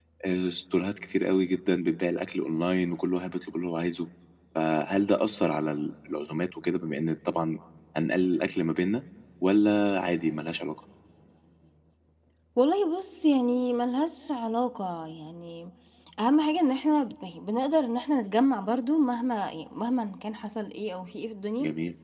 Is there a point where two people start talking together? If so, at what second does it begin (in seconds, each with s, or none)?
none